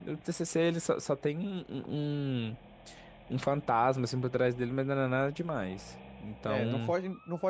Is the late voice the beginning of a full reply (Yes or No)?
Yes